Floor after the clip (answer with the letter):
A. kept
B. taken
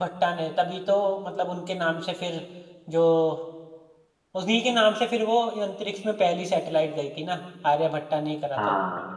B